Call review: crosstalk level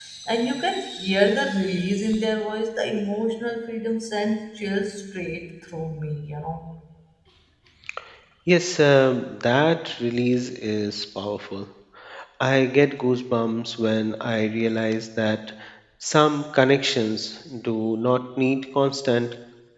none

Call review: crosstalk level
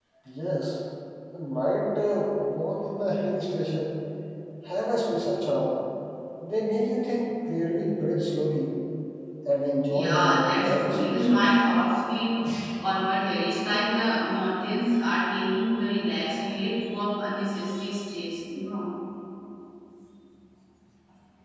present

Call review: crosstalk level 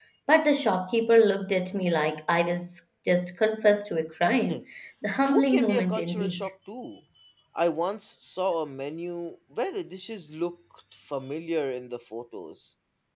present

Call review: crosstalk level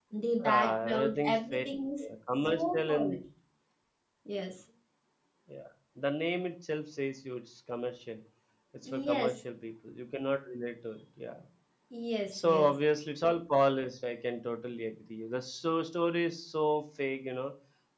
present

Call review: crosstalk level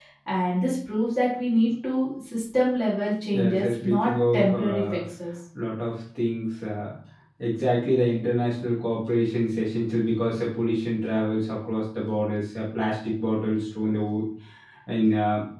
present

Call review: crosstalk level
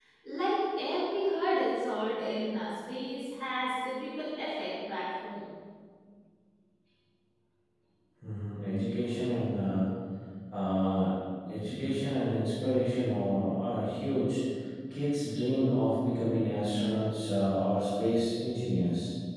none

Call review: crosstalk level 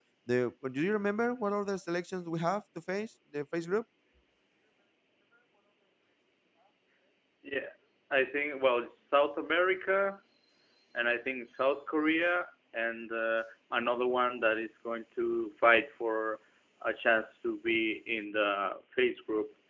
none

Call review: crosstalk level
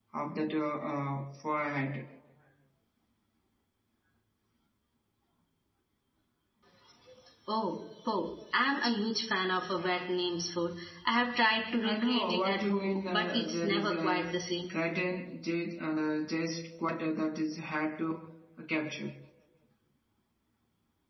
present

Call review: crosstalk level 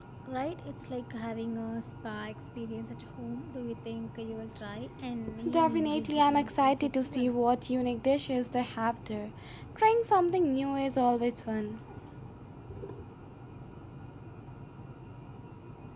present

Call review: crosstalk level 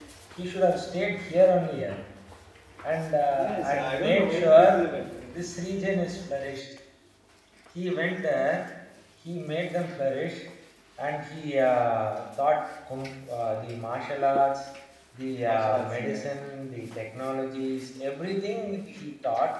present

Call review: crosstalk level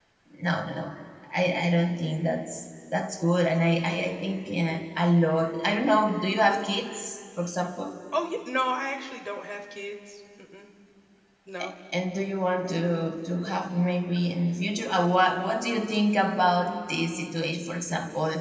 none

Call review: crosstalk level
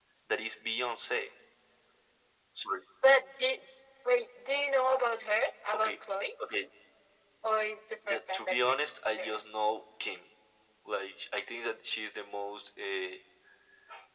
present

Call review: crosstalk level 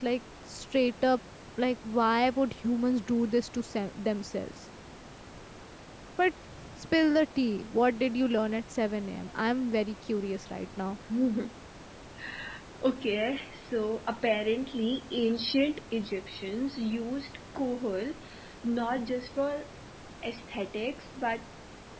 none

